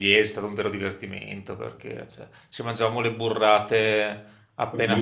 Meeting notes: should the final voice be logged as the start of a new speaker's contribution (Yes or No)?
No